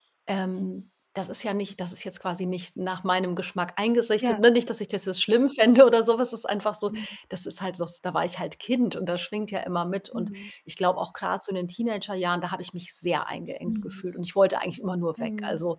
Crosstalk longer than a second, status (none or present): none